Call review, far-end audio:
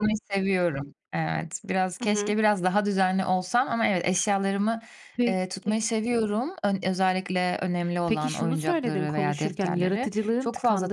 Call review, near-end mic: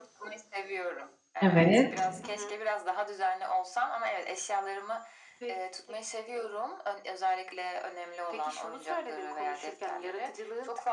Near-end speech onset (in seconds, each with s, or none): 1.4 s